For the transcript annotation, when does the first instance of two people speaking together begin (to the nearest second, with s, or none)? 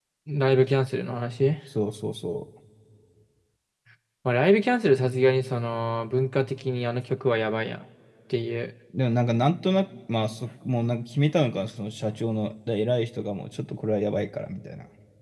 none